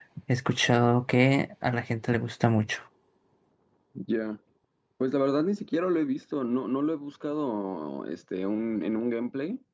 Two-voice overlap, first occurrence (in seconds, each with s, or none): none